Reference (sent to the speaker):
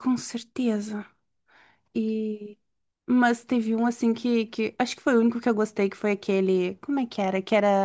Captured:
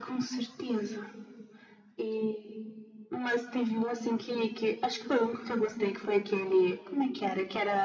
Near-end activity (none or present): none